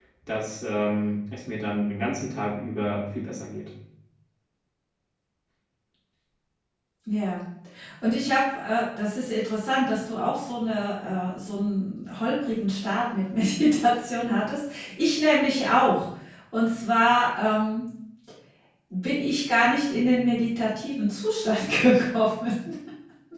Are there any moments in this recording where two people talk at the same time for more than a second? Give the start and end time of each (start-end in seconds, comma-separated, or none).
none